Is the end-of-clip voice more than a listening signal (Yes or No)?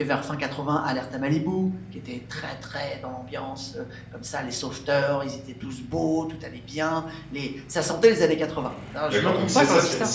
Yes